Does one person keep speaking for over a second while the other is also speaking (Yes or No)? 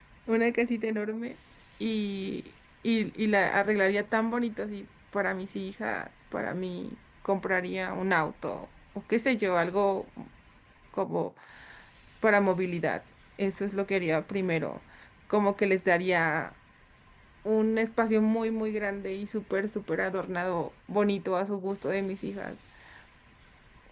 No